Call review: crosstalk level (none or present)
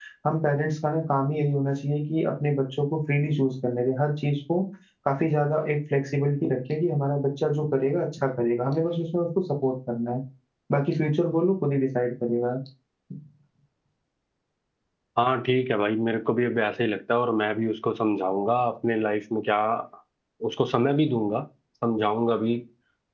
none